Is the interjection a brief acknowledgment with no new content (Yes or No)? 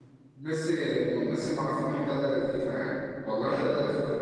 Yes